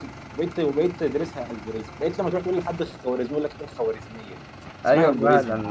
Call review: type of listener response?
taking over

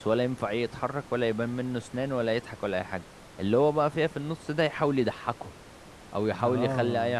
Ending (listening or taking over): listening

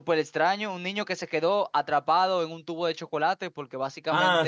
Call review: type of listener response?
taking over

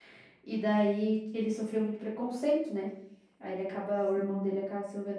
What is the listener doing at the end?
listening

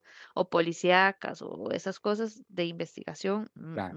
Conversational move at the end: listening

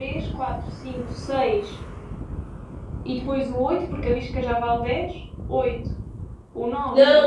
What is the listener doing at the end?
taking over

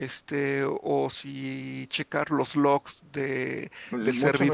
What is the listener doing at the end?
taking over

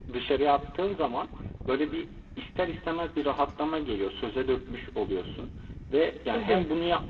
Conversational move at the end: listening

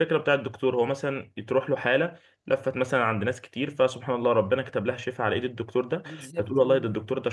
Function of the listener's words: listening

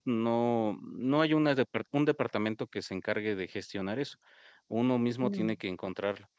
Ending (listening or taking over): listening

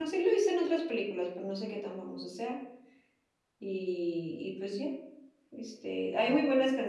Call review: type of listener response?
listening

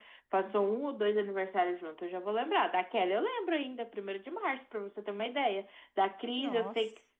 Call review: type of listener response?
listening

